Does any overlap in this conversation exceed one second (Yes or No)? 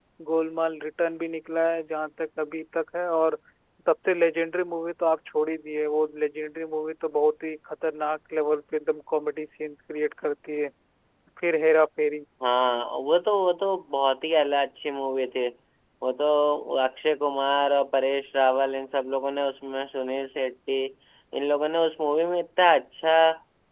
No